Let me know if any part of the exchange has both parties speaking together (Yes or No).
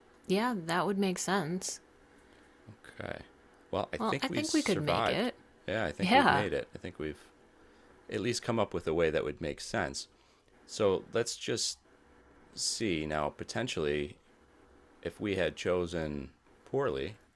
Yes